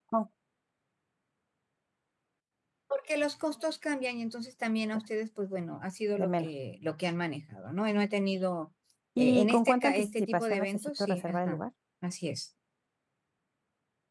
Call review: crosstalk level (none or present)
present